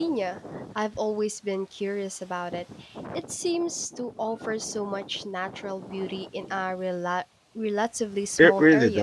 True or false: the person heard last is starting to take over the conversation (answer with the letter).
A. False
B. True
B